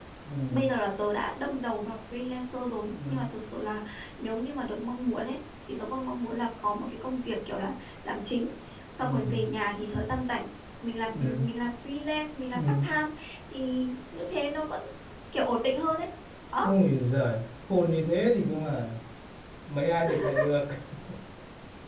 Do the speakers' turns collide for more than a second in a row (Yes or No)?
No